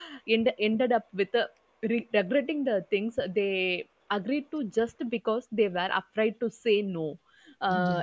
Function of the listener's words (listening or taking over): listening